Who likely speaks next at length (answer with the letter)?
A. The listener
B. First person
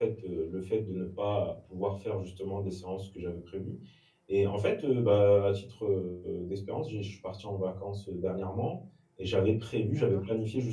B